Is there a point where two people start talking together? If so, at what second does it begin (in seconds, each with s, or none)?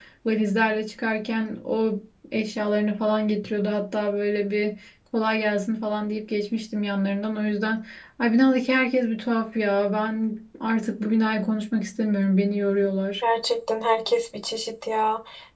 none